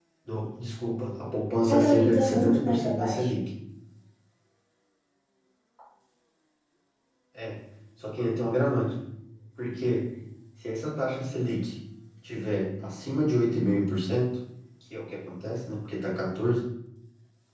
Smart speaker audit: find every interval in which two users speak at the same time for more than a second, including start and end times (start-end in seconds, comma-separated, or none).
1.7-3.4